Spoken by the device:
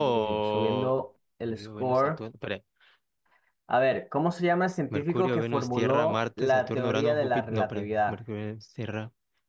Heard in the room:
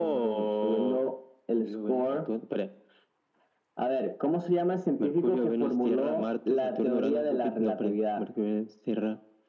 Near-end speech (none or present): none